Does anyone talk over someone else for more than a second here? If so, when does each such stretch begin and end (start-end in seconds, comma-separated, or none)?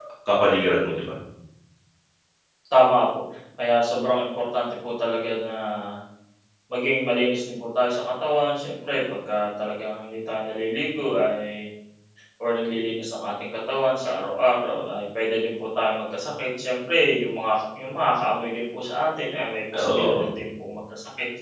none